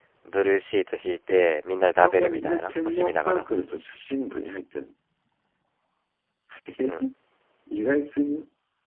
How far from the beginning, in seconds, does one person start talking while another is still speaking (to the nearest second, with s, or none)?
2 s